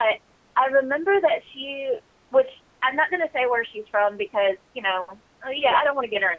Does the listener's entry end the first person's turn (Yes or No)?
No